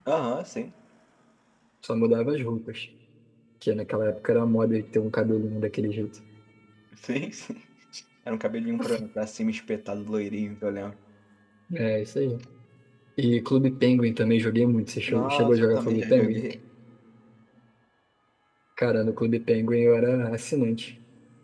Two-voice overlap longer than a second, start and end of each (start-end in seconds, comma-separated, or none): 15.1-16.4